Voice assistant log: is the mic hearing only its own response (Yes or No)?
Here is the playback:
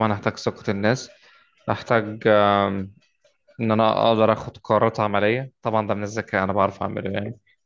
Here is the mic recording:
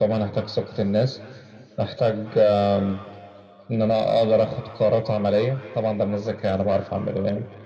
Yes